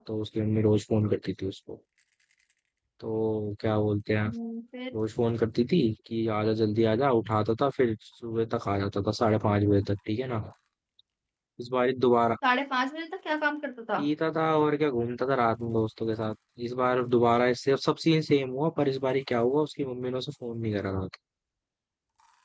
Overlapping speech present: No

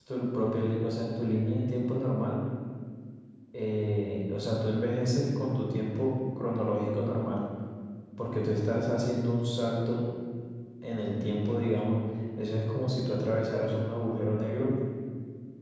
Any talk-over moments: No

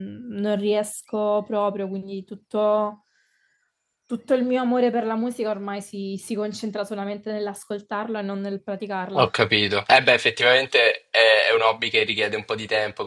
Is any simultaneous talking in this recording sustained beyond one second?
No

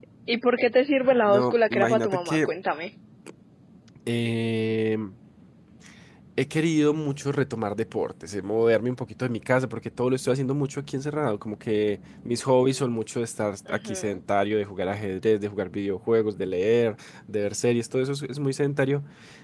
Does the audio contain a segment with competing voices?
Yes, from 1.3 s

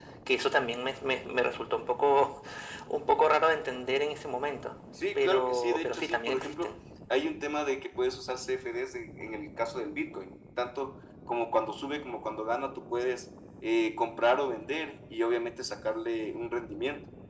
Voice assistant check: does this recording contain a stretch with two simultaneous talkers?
Yes, from 5.2 s

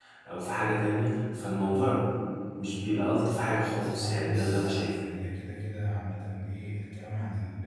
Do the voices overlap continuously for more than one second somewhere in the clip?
Yes, from 3.7 s

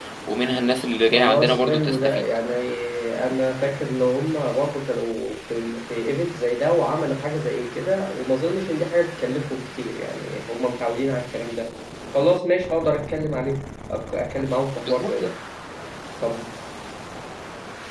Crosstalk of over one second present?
Yes, from 1.0 s

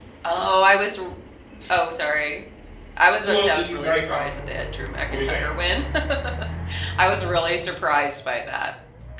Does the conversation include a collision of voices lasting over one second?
Yes, from 3.3 s

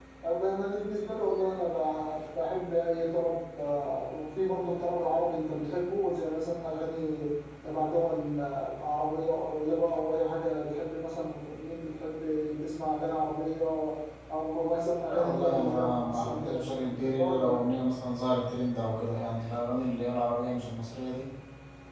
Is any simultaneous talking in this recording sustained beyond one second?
Yes, from 15.1 s

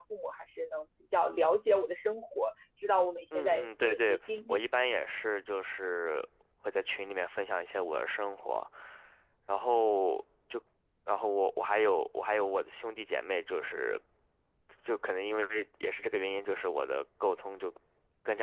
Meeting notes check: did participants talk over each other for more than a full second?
Yes, from 3.3 s

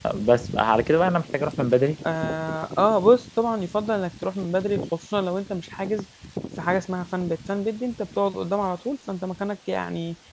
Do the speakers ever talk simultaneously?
No

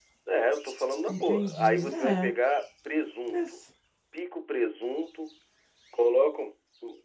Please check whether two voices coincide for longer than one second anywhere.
Yes, from 1.1 s

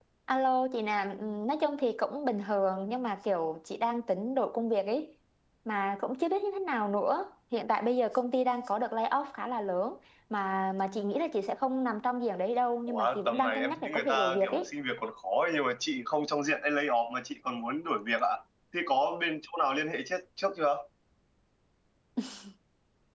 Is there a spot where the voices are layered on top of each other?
Yes, from 12.9 s

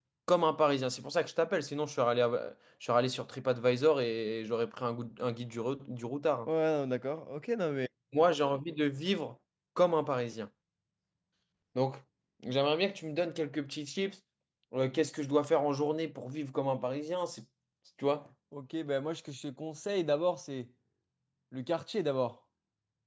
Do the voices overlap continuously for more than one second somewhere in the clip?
No

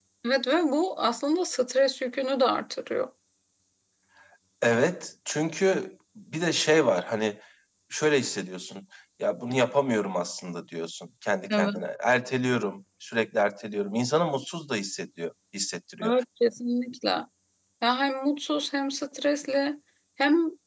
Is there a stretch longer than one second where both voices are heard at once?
No

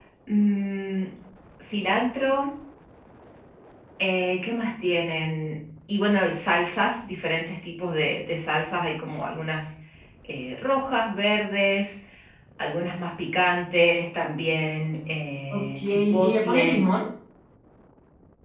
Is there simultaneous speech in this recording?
Yes, from 15.5 s

